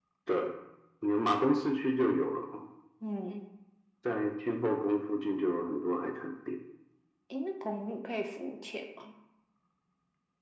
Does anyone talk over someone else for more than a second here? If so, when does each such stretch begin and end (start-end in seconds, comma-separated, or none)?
none